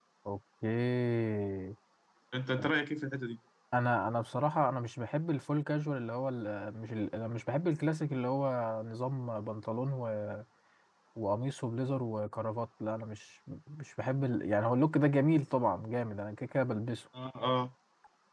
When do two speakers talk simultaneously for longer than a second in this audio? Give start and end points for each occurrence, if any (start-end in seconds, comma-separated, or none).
none